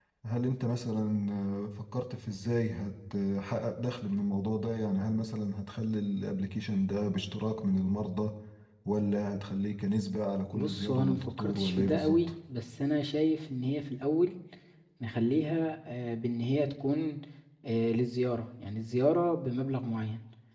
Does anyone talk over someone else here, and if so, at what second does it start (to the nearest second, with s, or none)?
11 s